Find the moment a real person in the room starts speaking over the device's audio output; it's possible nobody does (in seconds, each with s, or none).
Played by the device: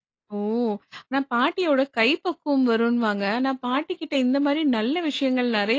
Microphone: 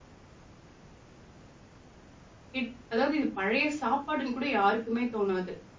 2.6 s